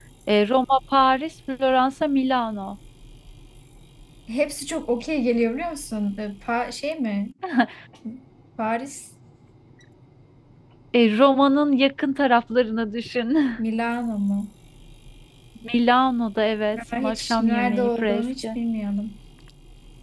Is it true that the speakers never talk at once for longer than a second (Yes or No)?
No